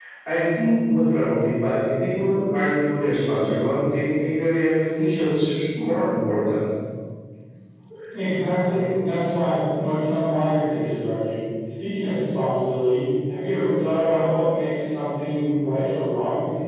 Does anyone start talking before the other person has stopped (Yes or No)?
No